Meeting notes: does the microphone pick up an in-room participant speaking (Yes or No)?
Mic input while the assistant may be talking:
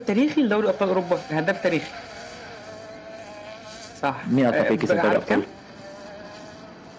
Yes